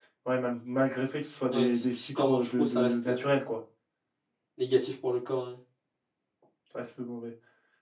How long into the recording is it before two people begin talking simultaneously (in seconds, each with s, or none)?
1.5 s